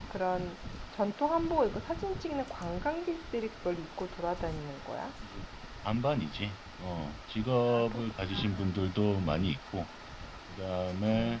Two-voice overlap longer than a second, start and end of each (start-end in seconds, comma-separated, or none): none